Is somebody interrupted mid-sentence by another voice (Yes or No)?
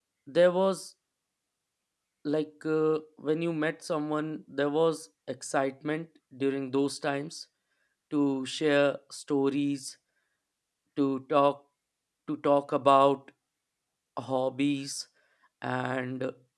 No